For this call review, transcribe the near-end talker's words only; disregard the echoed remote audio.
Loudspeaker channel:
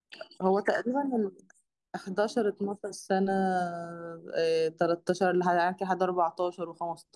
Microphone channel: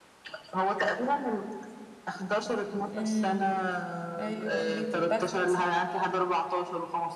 امم ايوه اغنية البخت

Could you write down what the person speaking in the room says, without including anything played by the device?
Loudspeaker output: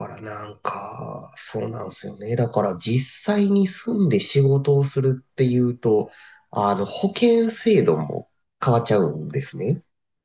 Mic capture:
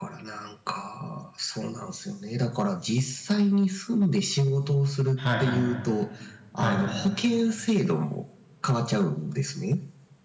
はい、はい、はい。

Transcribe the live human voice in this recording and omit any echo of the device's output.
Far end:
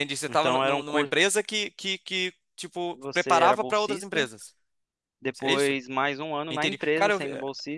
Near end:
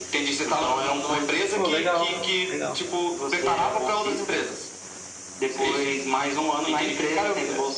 Pô, legal, legal.

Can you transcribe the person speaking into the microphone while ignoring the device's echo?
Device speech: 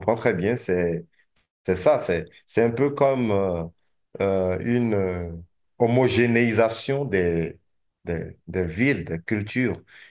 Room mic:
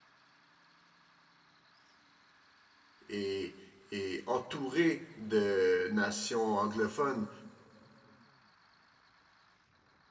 est, est entouré de nations anglophones.

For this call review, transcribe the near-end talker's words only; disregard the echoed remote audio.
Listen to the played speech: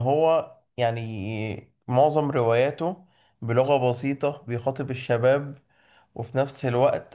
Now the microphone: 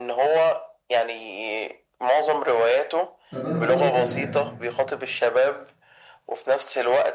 طب انا هقول لك على حاجه

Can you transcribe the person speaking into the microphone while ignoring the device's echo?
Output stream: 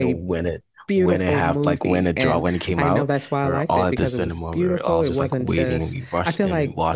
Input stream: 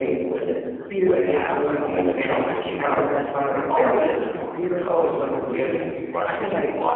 villain

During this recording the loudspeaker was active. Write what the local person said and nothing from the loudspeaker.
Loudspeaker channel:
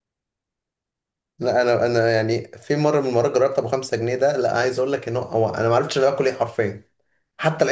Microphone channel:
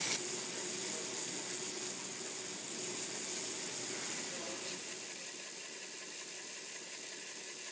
none

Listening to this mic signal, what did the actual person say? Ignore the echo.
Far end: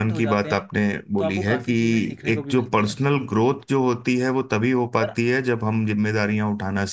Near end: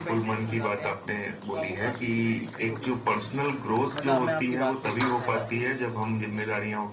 मतलब मैं आपकी बात से एकदम सहमत हूँ

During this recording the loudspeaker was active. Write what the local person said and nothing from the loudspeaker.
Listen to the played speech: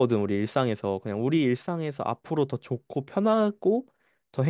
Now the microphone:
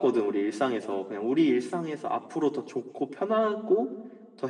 none

